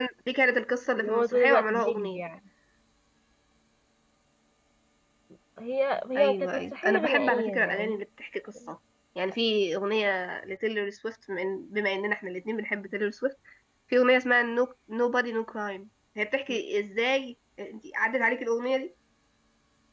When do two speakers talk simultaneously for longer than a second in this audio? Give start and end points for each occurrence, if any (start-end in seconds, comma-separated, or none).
1.0-2.2, 6.2-8.0